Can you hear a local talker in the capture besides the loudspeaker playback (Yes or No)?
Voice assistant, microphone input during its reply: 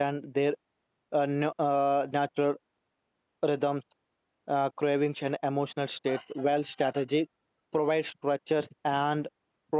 Yes